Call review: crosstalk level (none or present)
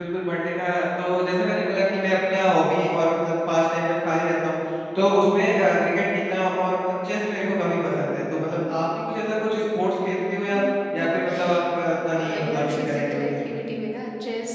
present